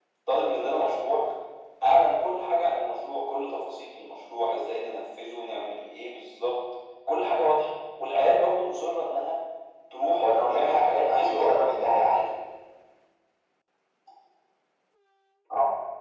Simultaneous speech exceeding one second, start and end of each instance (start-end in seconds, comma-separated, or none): 10.2-11.7